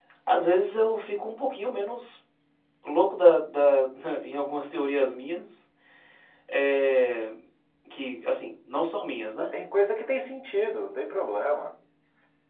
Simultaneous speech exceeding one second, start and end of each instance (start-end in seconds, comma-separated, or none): none